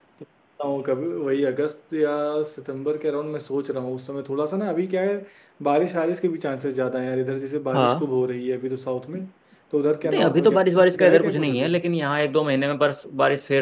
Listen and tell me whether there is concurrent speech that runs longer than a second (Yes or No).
Yes